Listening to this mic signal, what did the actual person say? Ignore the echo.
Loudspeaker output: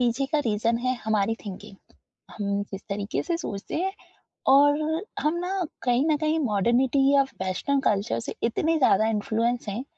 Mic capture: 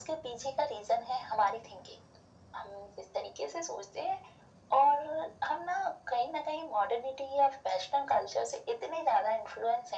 none

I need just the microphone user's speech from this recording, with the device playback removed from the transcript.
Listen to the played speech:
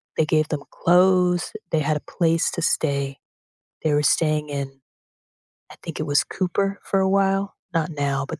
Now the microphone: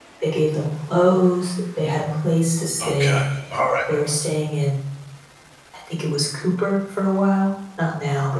Okay. All right.

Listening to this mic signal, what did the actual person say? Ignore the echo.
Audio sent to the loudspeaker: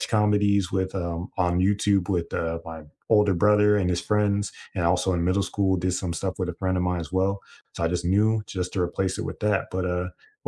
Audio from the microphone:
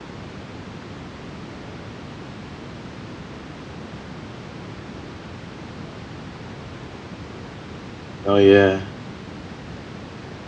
Oh yeah.

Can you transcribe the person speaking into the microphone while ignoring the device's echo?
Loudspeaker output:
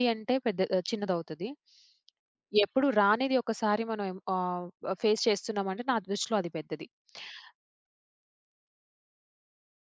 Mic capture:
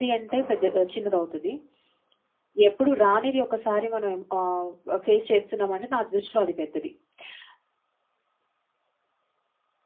అవునండి.

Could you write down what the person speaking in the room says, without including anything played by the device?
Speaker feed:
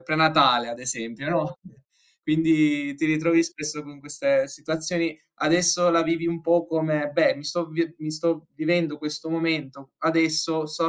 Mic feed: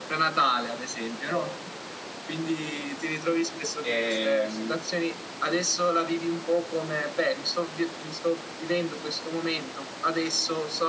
Ehm,

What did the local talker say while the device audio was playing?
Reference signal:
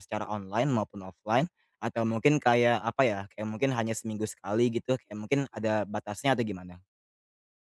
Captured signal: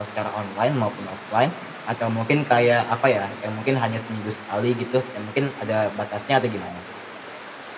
none

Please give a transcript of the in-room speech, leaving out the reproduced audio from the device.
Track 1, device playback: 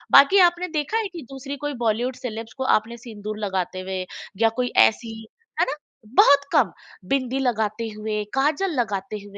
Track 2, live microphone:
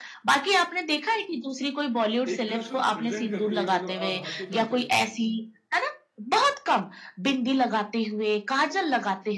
एक तरह से वो प्रेज़ेंट करती हैं मतलब अ, भारतीय कल्चर को,

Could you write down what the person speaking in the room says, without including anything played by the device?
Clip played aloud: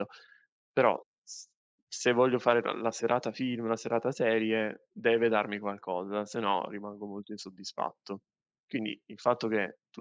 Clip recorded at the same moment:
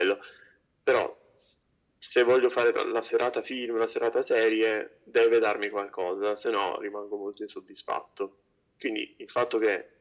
none

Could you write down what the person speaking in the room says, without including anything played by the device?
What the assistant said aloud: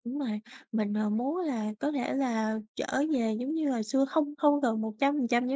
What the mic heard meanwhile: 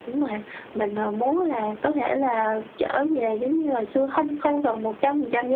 none

